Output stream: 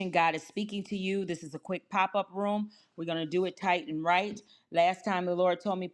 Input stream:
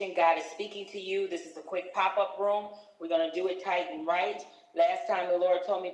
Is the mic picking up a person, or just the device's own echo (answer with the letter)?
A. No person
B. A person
A